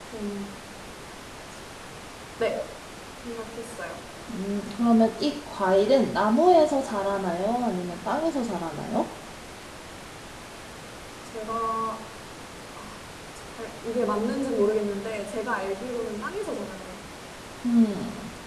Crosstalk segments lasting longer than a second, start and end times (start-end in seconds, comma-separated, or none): none